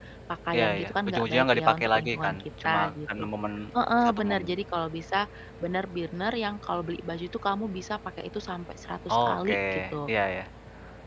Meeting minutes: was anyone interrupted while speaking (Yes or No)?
Yes